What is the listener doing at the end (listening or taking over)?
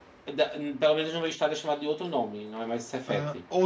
taking over